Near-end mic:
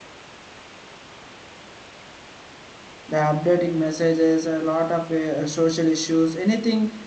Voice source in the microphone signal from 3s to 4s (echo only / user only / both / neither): user only